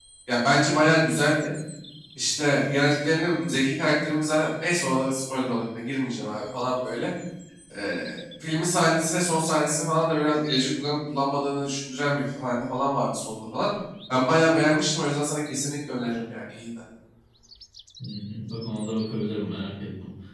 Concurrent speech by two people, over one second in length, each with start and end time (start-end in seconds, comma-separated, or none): none